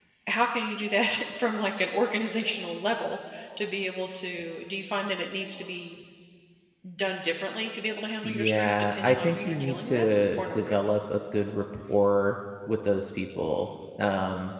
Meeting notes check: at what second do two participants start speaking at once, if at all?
8 s

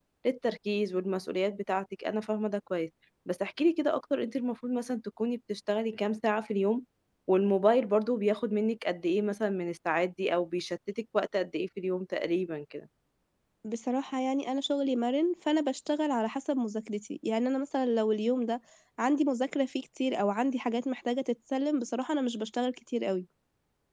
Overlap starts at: none

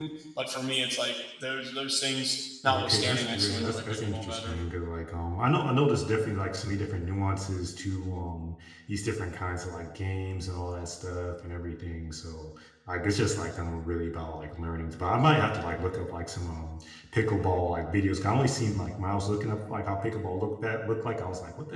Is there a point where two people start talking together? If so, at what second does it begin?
3 s

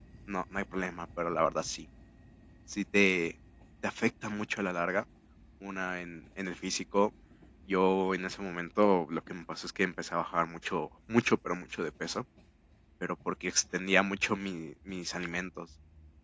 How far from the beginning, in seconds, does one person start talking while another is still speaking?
none

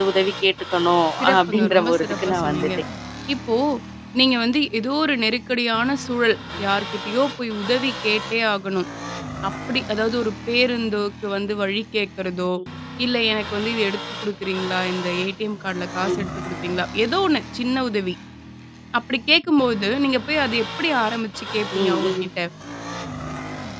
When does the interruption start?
1 s

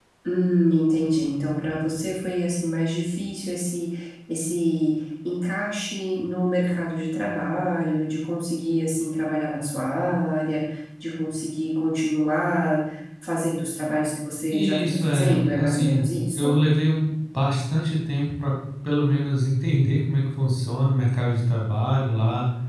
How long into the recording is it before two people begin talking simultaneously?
15 s

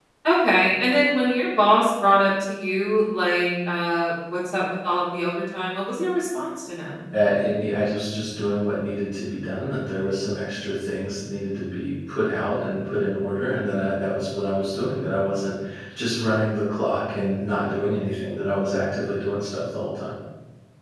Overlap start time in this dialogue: none

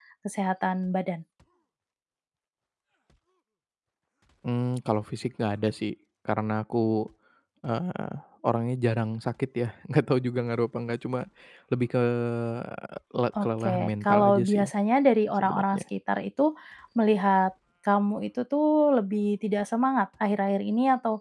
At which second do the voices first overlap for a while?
13 s

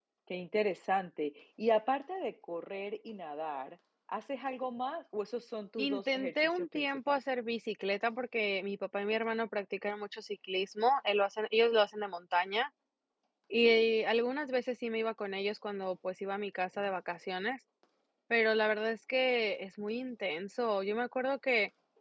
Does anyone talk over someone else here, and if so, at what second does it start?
6 s

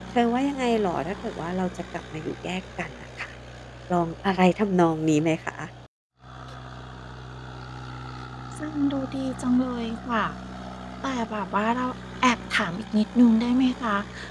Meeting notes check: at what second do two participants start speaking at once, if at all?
none

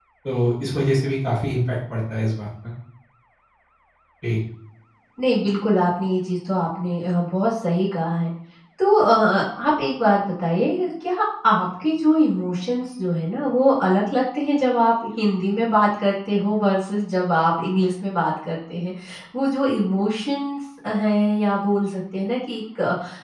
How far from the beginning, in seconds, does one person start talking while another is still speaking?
none

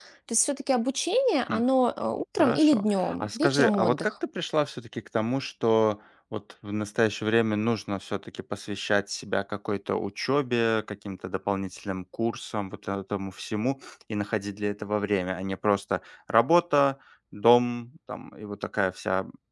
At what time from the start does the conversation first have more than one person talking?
2 s

